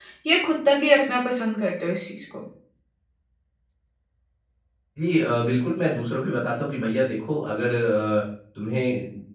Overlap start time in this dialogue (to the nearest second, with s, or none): none